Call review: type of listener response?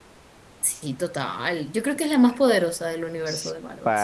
taking over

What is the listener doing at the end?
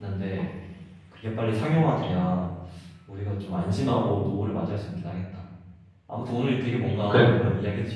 listening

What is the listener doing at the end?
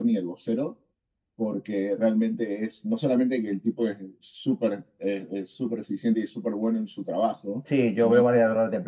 taking over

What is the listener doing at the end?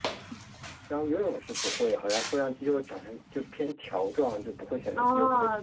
taking over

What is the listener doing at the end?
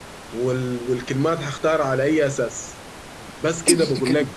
listening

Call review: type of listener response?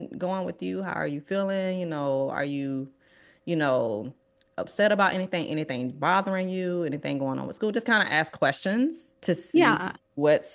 listening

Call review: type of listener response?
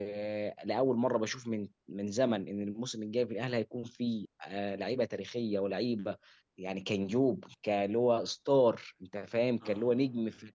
listening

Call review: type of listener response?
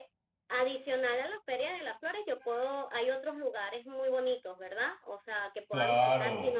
taking over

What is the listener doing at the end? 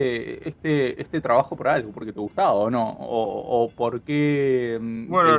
taking over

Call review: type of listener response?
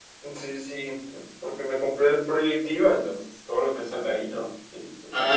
taking over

